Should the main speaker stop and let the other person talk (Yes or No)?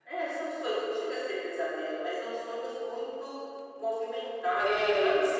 Yes